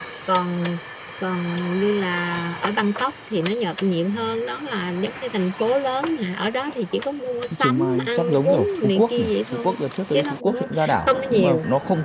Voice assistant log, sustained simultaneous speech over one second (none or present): present